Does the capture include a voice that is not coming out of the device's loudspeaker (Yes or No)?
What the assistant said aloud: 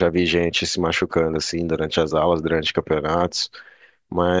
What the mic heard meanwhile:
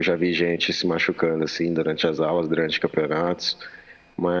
No